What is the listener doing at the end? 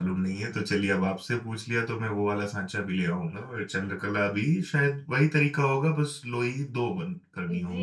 taking over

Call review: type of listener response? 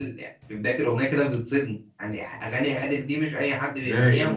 taking over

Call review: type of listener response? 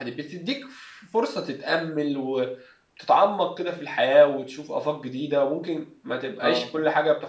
listening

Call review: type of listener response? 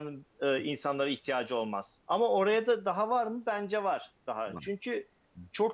listening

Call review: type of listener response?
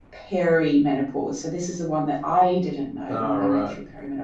listening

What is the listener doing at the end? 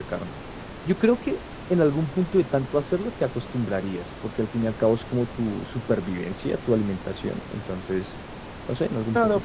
taking over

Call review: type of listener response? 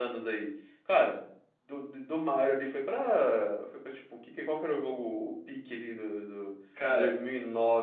listening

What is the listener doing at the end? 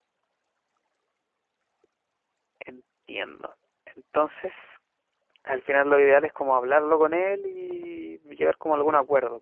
taking over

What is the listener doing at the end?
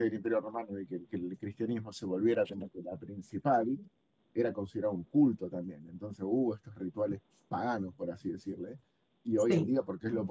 listening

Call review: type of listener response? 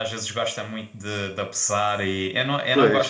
listening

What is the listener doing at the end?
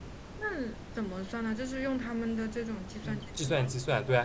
taking over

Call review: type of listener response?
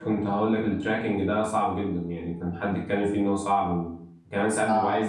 listening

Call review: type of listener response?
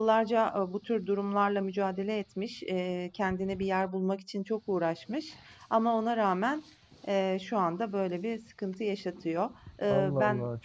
taking over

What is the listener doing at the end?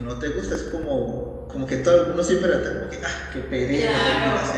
taking over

